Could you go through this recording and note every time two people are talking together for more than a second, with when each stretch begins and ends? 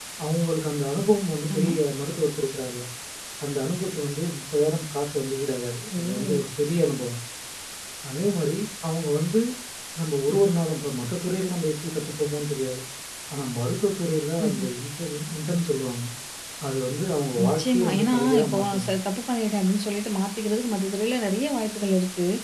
17.4-18.9

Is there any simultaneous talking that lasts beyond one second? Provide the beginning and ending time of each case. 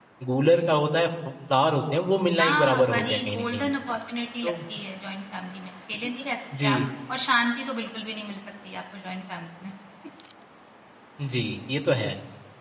2.4-3.7

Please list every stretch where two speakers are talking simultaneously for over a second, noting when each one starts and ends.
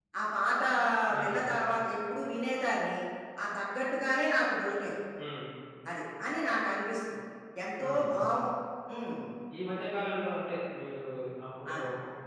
none

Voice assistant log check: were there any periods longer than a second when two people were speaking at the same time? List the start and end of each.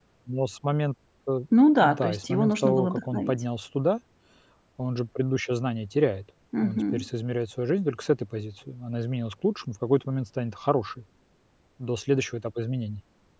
1.8-3.4

